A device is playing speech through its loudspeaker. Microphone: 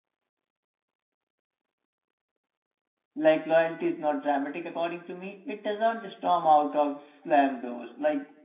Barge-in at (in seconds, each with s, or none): 3.1 s